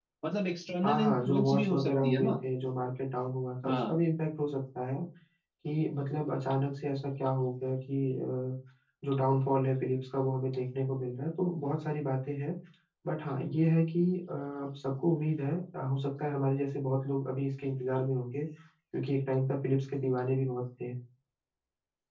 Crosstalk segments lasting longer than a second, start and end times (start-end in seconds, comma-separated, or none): 0.8-2.3